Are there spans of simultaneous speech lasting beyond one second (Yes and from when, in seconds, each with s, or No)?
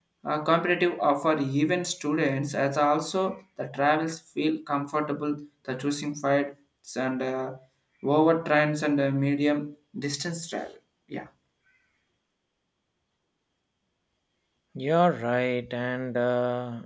No